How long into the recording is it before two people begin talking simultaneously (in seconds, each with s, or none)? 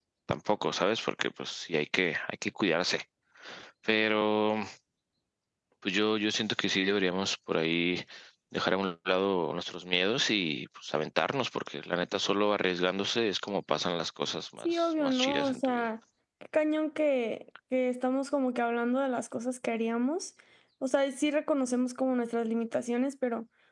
14.6 s